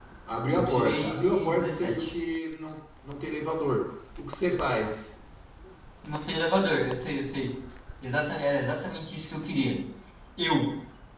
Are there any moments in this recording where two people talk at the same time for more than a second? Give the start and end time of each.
0.5-2.1

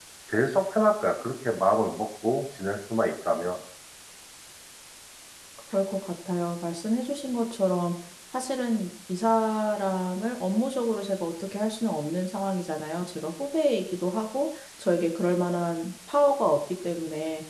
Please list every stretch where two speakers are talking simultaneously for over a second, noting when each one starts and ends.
none

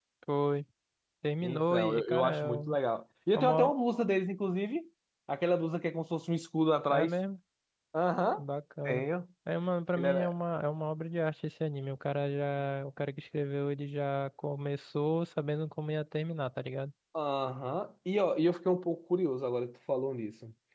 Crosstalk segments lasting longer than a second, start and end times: 1.4-2.7

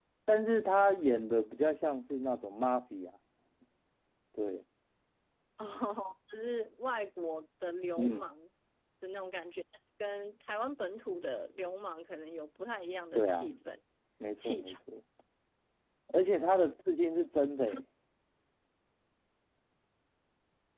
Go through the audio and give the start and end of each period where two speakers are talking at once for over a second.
none

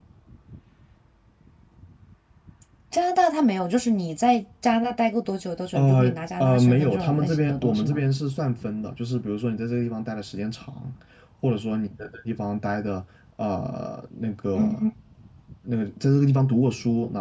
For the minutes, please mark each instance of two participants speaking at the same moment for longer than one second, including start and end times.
5.7-8.0

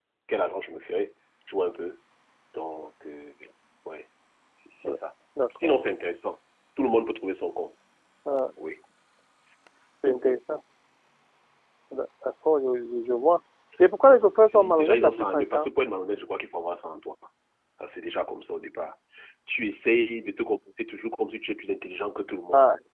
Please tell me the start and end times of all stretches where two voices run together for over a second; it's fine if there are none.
14.0-15.7

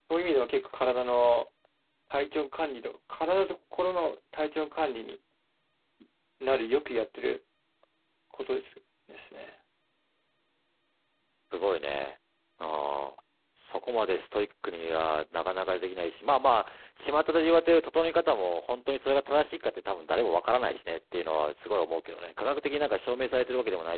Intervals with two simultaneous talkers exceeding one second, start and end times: none

